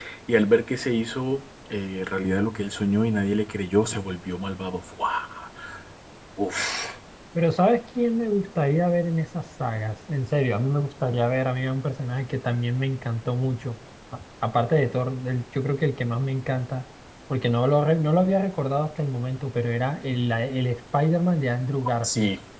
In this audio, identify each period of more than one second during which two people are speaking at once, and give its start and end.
none

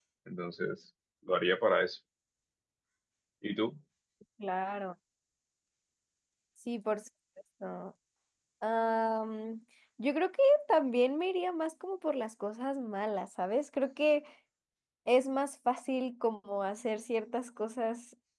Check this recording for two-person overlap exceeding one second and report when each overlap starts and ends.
none

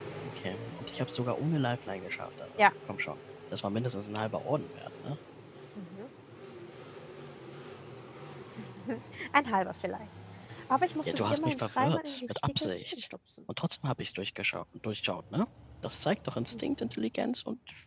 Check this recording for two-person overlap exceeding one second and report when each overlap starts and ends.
11.1-13.1

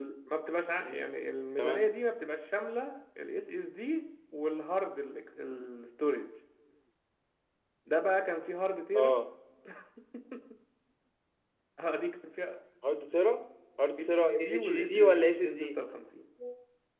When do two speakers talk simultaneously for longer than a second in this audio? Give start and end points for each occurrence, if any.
14.1-15.7

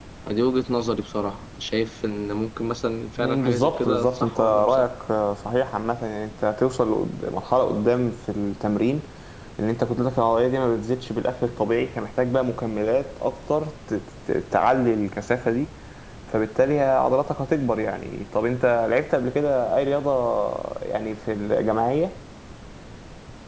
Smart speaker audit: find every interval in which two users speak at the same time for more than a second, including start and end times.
3.2-4.9

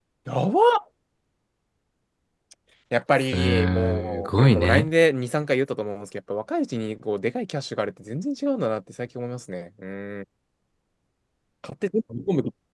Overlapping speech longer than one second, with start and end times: 3.3-4.9

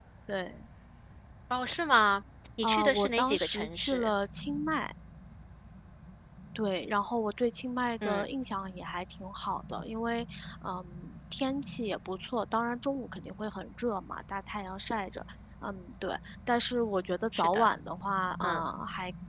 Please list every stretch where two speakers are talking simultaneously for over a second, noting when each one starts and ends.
2.6-4.1

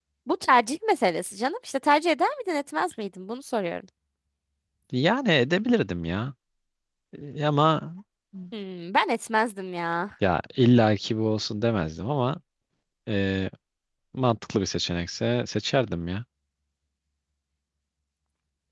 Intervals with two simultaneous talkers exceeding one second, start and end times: none

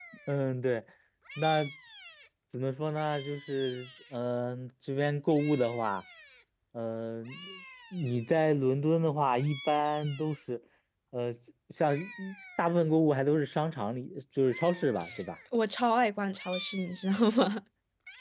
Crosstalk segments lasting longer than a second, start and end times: none

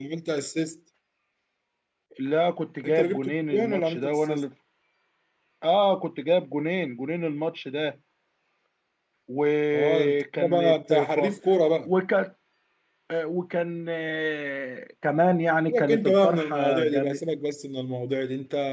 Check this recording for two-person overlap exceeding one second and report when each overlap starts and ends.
2.8-4.4, 9.7-11.2, 15.7-17.2

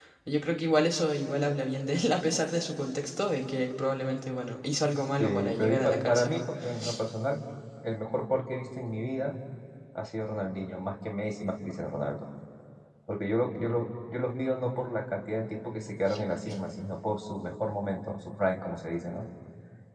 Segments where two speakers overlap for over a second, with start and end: 5.2-6.4

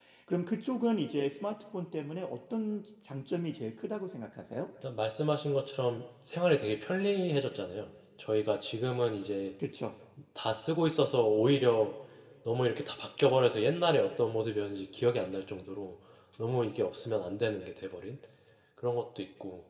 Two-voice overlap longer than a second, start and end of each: none

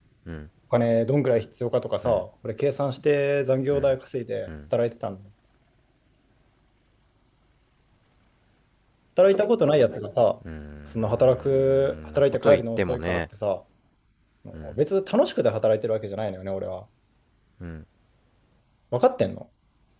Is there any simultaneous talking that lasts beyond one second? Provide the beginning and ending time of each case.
10.9-13.2

